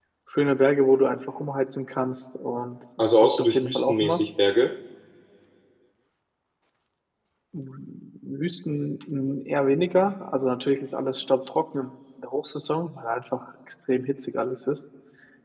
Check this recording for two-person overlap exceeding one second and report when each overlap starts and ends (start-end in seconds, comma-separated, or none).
3.0-4.2